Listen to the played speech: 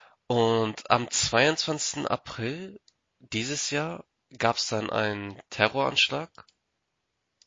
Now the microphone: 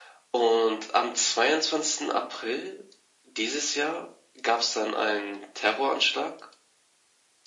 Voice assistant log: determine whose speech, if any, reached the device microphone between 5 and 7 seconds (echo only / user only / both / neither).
echo only